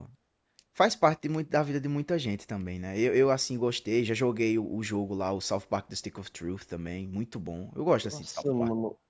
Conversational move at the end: taking over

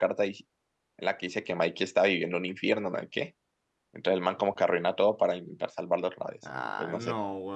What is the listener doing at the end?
taking over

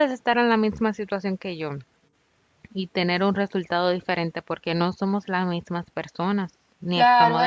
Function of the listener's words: taking over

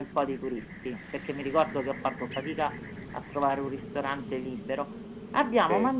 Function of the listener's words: listening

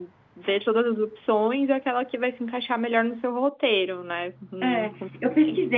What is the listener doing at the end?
taking over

